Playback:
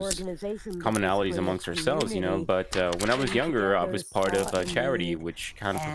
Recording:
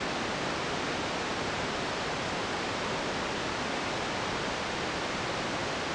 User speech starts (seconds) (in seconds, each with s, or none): none